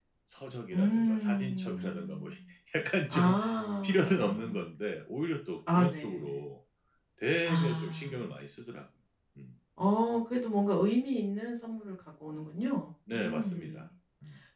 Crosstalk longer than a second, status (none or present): present